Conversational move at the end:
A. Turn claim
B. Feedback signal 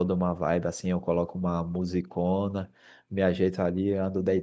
B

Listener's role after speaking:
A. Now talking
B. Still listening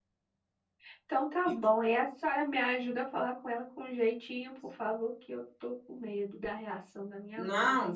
A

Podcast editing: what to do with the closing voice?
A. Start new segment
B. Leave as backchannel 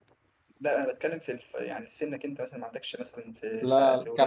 A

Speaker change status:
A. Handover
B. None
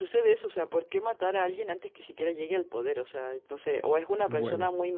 B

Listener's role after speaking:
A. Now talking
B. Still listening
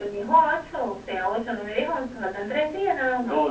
A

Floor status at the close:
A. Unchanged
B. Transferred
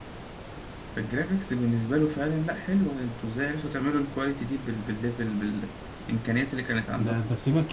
B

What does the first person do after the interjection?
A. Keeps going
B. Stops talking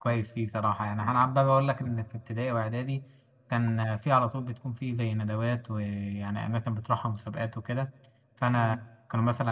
A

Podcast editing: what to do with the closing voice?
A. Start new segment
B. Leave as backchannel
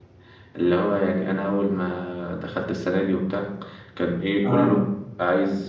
B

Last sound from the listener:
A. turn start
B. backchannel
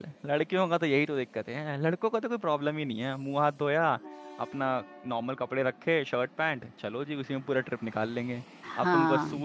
B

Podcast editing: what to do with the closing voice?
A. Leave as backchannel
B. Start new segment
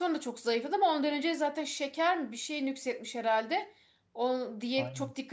A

